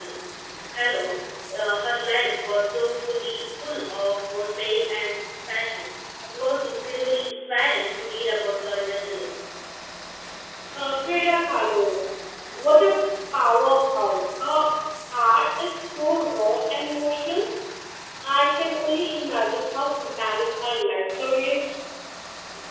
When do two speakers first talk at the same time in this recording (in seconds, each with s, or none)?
none